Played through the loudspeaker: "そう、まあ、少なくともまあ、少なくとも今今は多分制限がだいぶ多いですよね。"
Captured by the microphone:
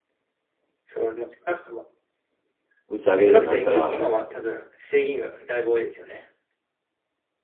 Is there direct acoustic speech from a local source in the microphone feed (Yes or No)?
Yes